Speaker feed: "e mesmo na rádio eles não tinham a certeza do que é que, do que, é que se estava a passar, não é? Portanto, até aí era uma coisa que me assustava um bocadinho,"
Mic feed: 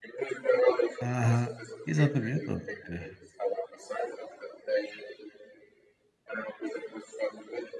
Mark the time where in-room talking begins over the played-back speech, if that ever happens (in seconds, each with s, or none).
1.0 s